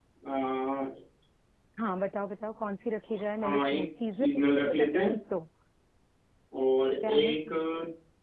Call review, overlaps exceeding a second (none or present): present